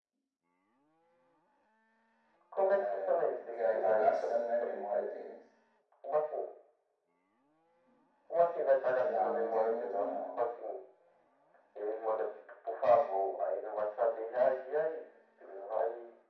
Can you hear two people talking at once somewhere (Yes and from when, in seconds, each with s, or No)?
Yes, from 2.7 s